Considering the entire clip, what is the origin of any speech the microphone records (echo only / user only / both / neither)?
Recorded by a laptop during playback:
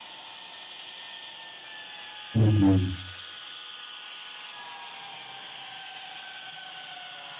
user only